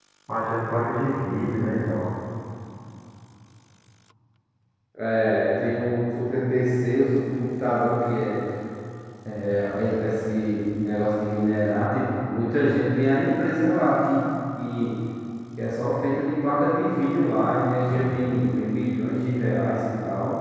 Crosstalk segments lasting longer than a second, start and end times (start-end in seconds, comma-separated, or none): none